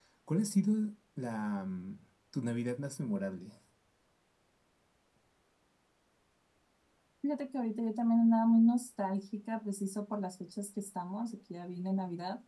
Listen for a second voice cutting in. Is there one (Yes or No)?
No